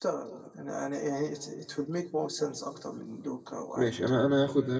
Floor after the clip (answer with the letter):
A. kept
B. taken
B